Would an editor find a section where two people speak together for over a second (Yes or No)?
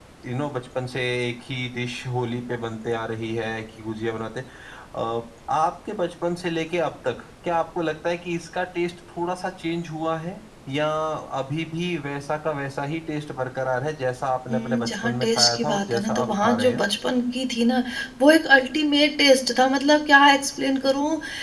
Yes